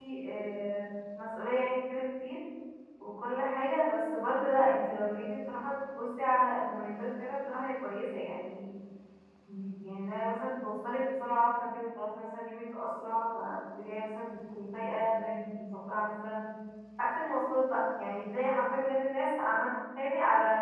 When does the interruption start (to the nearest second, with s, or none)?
none